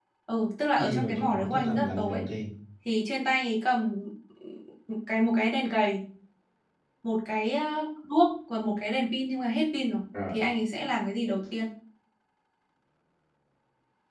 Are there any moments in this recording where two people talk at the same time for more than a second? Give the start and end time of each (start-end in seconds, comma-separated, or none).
0.8-2.2